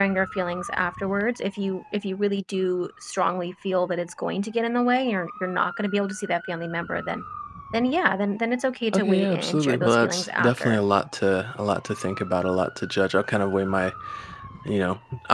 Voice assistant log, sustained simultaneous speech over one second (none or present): present